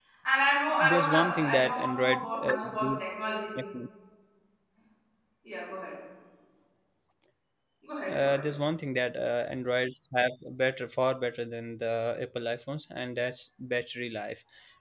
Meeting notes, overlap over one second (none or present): present